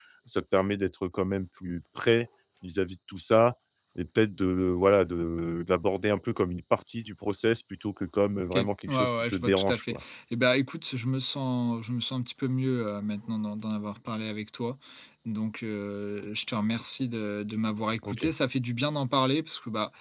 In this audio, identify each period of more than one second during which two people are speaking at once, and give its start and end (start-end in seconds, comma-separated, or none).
8.5-9.9